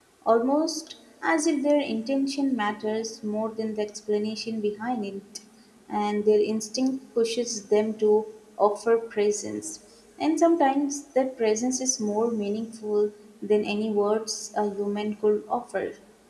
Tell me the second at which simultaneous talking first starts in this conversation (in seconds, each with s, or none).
none